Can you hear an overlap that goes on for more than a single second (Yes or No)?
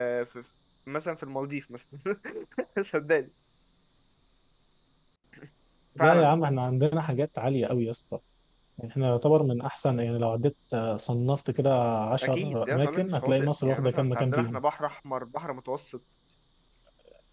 Yes